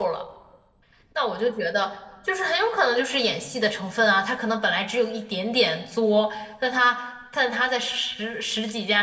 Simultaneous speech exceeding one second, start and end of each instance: none

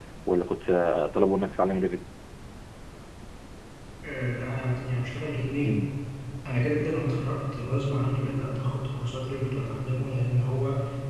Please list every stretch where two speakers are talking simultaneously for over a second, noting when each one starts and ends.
none

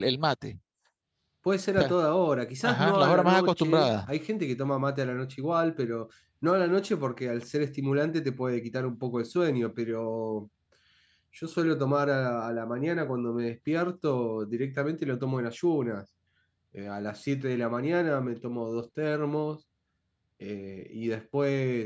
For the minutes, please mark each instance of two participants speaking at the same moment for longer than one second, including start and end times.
2.6-4.1

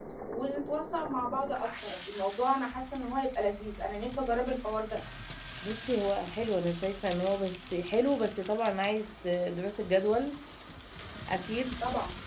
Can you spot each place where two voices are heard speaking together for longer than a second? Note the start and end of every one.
none

